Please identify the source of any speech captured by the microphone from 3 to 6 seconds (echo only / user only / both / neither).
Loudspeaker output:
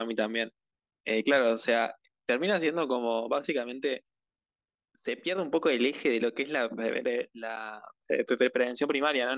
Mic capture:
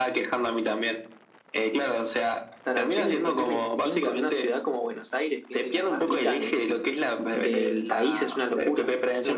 both